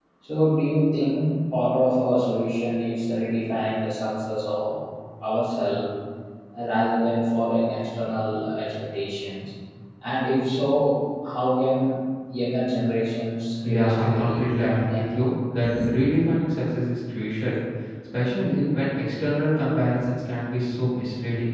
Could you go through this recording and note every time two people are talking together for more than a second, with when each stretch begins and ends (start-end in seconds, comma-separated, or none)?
13.6-15.0